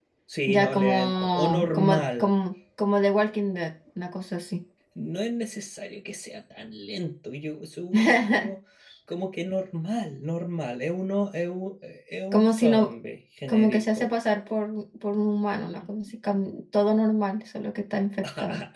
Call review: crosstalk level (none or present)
present